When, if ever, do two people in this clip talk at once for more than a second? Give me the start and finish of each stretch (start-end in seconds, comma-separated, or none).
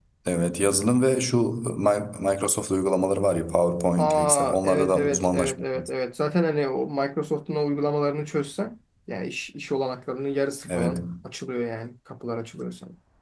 4.0-5.9